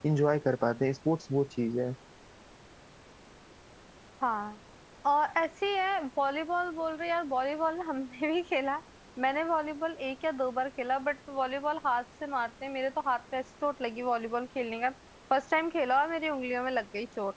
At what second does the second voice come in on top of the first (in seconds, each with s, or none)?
none